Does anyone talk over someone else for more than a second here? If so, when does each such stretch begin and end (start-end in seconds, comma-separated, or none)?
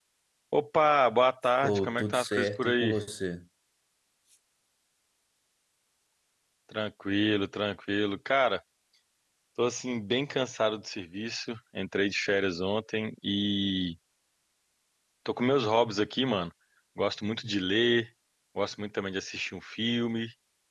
1.6-2.9